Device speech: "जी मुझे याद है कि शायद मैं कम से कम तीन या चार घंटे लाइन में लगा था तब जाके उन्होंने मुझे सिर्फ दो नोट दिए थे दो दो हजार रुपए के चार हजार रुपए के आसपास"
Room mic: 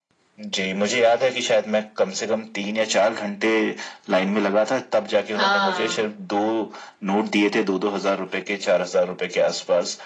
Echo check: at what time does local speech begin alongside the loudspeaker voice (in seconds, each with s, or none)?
5.3 s